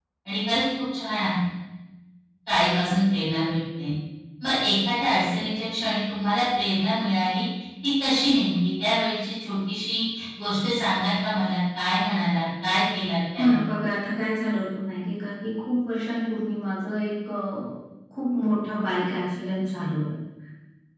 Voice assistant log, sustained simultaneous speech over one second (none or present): none